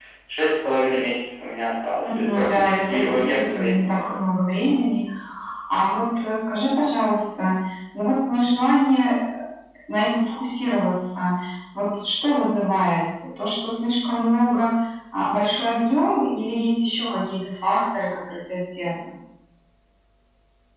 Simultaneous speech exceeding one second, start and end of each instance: 2.0-4.2

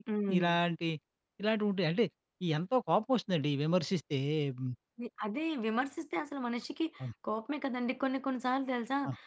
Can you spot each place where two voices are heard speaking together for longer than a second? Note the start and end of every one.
none

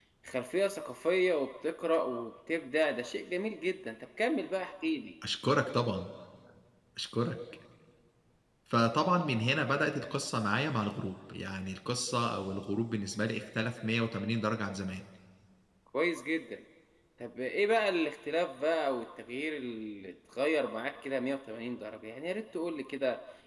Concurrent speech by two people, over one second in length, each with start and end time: none

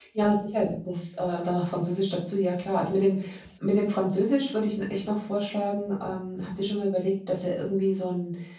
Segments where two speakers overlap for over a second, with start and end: none

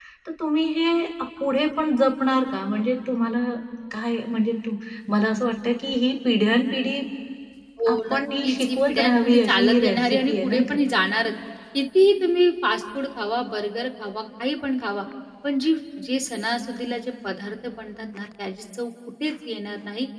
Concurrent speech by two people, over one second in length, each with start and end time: 7.9-10.8

